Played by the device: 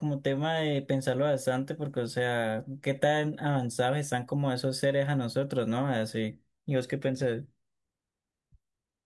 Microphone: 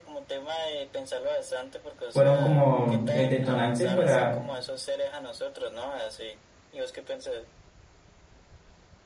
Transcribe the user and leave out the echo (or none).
fueron como el detonante para